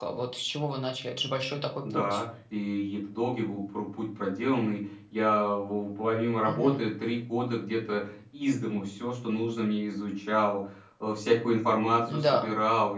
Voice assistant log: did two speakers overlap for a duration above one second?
No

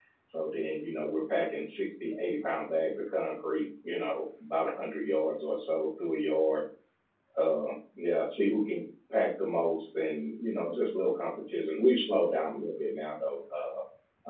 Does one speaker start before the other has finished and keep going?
No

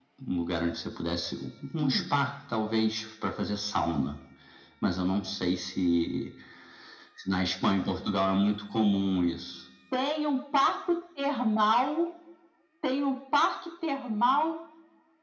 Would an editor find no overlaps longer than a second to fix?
Yes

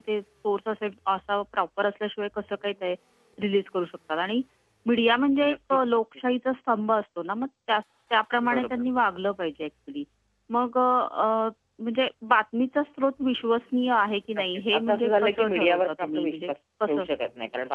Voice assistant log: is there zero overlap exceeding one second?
No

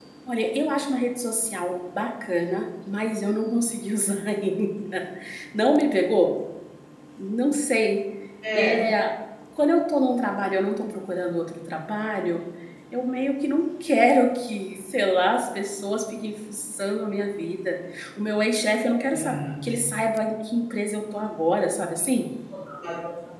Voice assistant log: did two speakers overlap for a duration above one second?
No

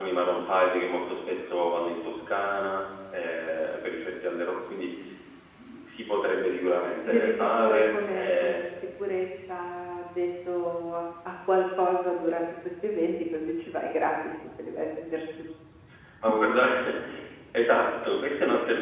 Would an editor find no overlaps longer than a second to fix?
No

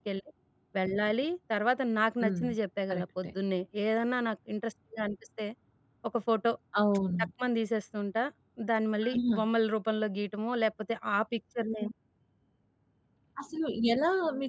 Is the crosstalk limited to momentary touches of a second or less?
Yes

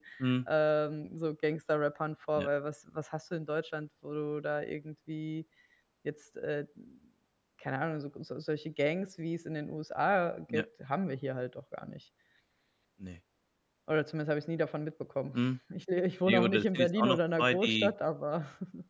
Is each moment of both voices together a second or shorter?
No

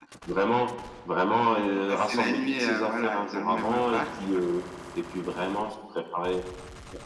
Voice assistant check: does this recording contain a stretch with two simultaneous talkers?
Yes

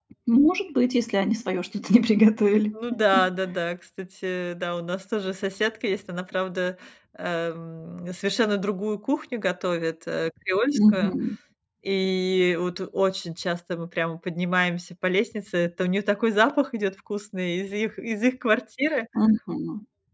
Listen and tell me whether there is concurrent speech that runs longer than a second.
No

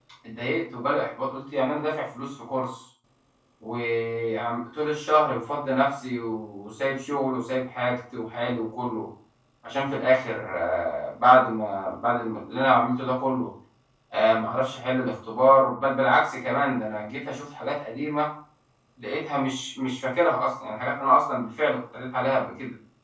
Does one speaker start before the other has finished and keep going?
No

